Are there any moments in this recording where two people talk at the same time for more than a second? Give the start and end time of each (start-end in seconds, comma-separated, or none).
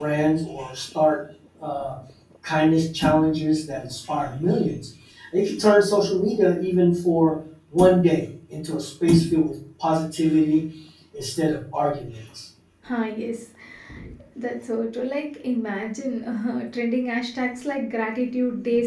none